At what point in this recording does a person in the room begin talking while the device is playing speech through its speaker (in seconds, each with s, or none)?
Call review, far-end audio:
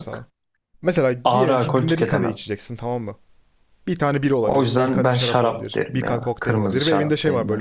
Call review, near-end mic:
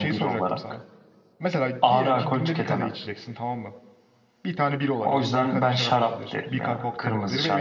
none